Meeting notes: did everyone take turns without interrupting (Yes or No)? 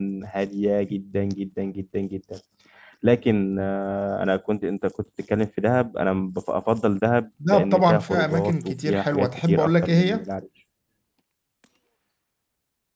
No